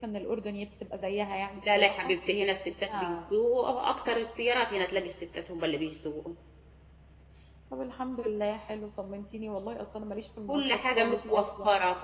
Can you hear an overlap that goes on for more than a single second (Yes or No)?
Yes